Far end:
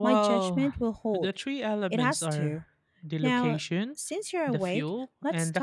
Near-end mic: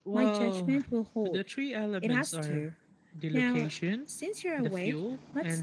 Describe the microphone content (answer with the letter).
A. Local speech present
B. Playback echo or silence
B